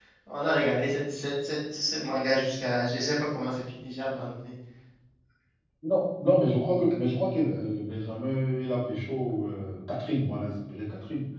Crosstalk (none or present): none